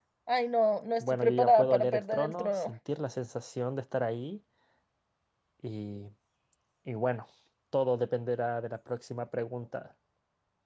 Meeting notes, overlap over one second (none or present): present